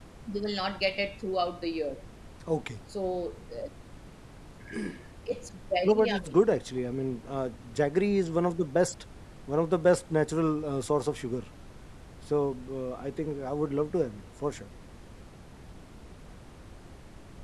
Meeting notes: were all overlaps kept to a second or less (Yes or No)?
Yes